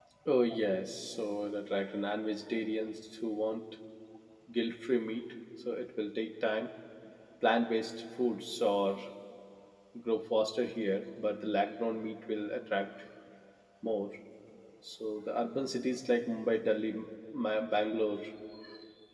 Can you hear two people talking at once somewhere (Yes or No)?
No